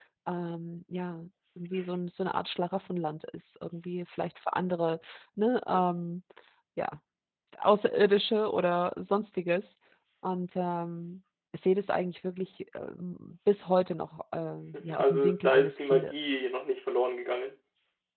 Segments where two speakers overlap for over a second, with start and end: 14.7-16.2

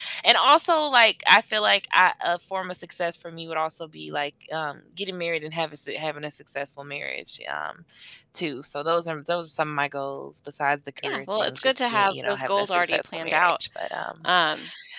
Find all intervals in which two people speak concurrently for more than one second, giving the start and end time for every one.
11.0-13.5

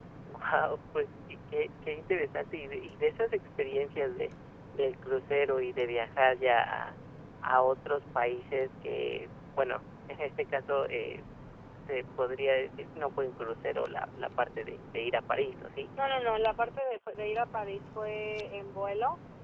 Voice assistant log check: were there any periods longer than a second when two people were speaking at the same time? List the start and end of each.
none

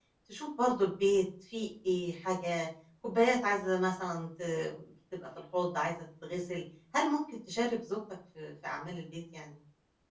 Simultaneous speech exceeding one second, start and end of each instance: none

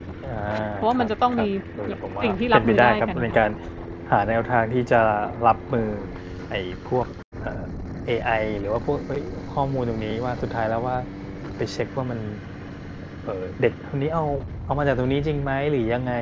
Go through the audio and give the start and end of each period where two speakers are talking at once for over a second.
1.9-3.4

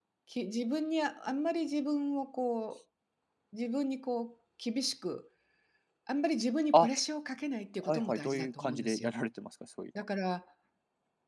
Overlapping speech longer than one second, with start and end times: 7.9-9.1

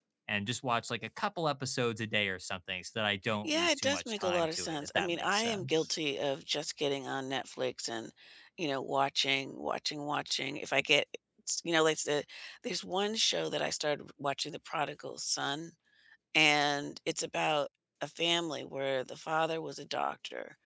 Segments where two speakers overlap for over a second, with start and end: 3.4-5.9

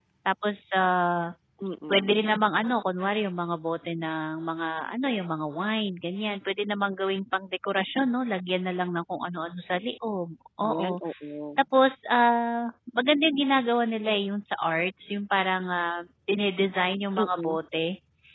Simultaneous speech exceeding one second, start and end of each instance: none

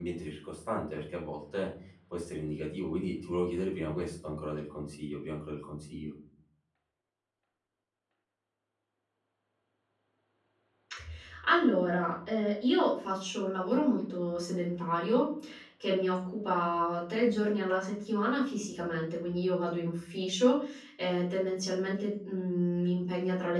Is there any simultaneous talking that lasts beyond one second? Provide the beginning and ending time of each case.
none

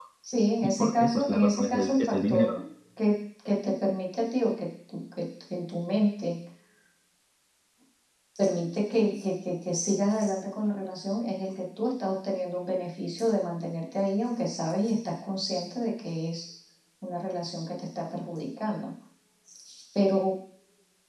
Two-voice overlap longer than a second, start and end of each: 0.6-2.5

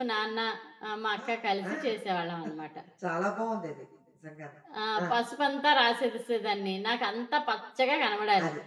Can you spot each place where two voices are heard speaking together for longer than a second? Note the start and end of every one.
none

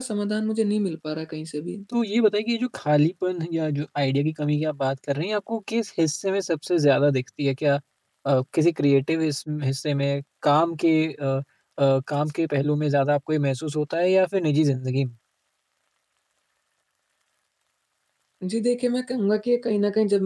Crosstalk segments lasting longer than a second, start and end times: none

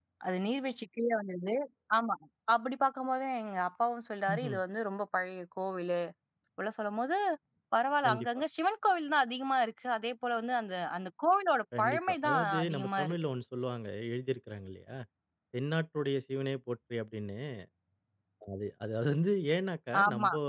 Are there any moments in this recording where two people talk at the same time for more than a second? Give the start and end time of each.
11.8-13.2

